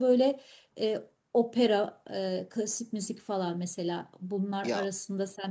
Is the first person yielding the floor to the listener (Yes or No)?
No